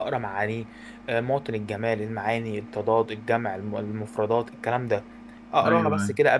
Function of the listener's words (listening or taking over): listening